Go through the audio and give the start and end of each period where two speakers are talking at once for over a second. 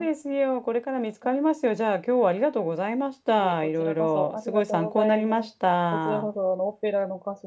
3.4-5.5

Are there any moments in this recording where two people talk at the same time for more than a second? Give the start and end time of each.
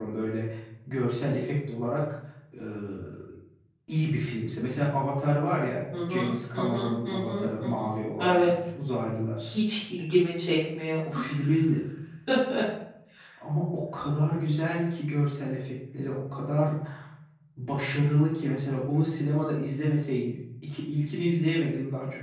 6.1-7.8

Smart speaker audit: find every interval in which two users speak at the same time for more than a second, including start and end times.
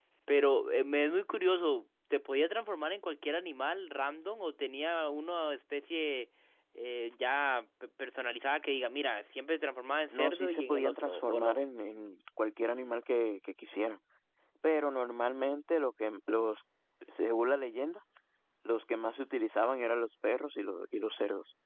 10.1-11.6

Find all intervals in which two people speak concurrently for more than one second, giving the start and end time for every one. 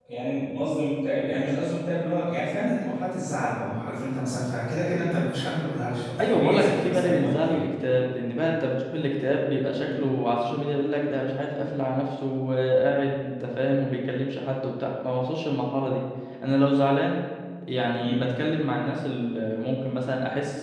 6.2-7.6

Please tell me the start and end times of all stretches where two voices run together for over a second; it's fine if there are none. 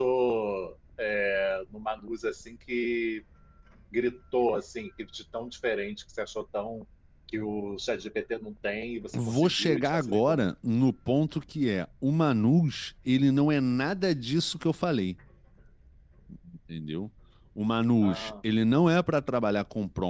9.1-10.4

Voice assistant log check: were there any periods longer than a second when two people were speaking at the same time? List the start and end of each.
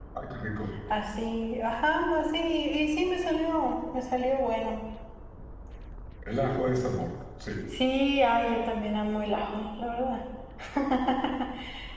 none

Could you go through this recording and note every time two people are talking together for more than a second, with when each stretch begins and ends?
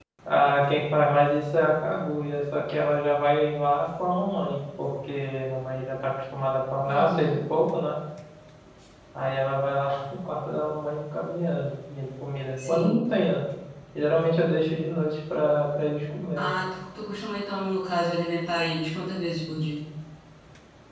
none

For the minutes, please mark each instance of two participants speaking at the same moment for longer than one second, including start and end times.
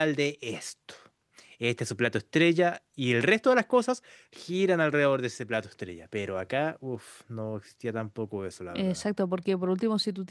none

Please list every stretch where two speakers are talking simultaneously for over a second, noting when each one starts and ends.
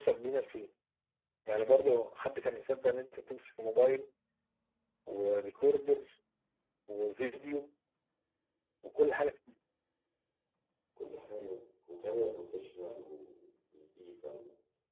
none

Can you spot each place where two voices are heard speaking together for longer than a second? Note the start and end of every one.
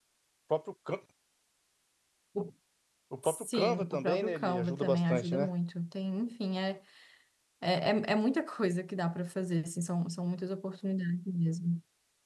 3.2-5.5

